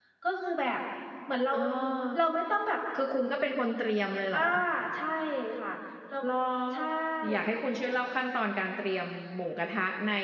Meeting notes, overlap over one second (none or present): none